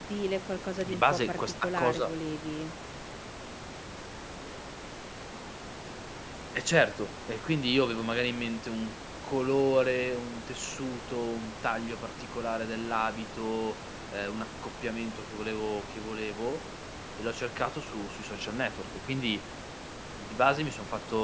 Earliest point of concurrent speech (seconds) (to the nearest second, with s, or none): 1 s